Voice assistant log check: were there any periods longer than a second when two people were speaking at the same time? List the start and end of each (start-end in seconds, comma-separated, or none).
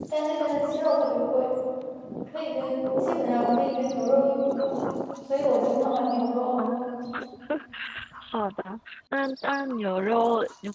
none